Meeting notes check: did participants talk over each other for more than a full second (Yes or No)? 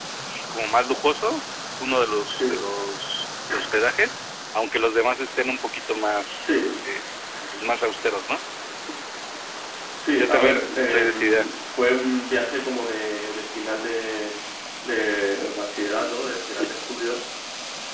Yes